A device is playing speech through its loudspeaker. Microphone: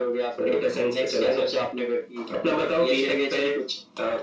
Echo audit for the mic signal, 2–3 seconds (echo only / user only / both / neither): echo only